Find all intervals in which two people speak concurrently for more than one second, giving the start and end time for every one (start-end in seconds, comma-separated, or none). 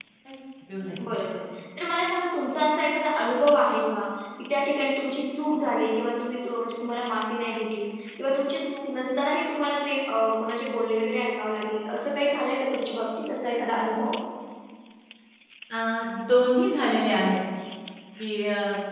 none